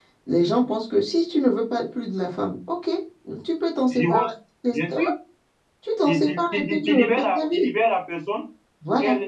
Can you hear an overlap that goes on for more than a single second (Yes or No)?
Yes